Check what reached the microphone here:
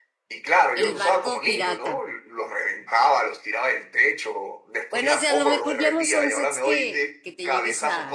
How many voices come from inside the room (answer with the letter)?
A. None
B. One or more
B